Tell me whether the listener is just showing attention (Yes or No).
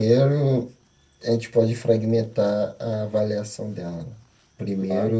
Yes